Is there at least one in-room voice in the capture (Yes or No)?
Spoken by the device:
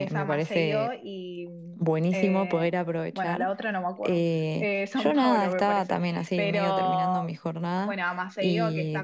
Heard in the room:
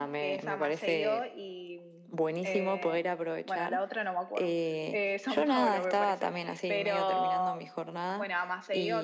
No